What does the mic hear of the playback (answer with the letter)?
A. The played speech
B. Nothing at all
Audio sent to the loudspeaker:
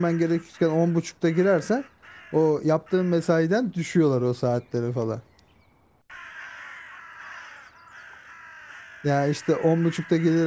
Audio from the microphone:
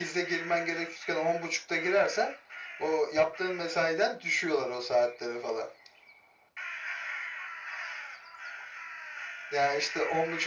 A